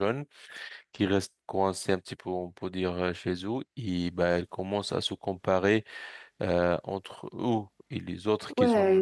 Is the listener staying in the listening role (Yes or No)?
No